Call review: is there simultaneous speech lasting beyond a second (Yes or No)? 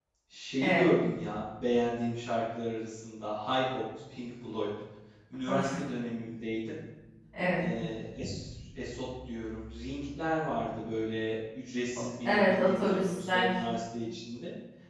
Yes